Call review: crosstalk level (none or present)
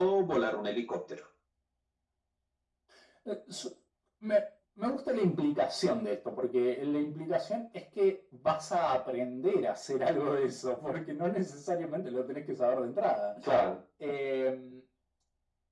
none